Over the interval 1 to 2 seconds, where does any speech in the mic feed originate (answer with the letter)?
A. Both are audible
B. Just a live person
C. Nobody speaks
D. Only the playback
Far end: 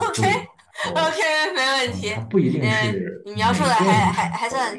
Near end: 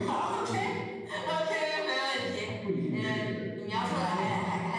D